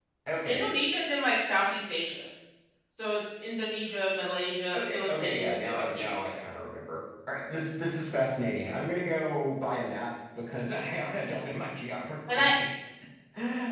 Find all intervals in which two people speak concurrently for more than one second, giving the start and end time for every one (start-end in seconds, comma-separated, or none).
4.7-6.4